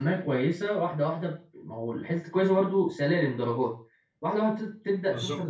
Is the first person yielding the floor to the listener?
No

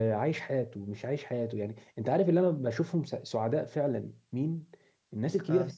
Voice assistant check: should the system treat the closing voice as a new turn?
No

